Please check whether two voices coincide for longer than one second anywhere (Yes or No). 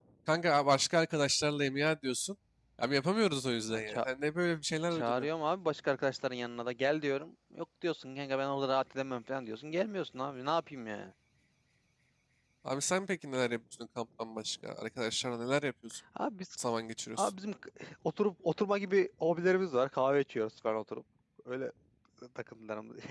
No